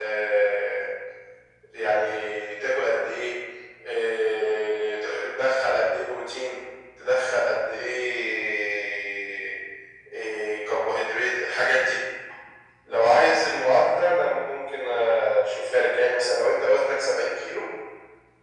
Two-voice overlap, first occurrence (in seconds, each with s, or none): none